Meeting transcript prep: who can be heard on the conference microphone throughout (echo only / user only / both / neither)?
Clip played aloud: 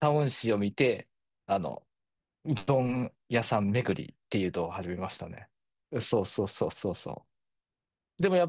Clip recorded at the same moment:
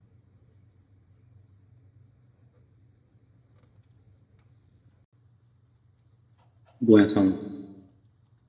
user only